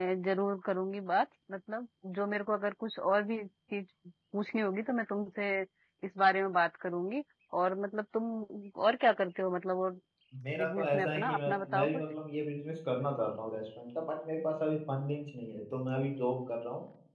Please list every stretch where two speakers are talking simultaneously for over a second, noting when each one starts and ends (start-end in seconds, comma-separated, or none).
10.5-11.9